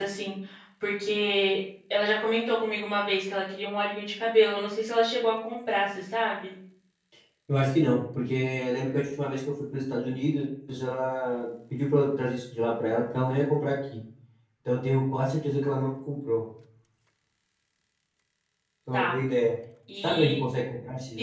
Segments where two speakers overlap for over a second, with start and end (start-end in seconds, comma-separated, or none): none